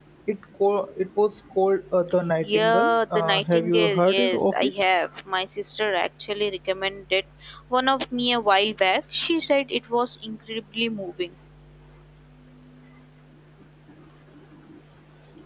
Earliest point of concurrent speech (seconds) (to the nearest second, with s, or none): 2 s